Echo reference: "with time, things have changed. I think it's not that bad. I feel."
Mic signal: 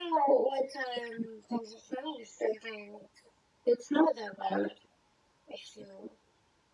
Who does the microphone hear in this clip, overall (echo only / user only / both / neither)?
echo only